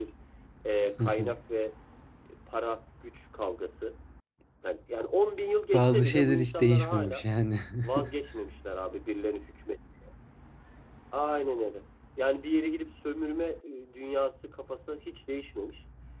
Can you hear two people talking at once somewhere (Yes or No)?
Yes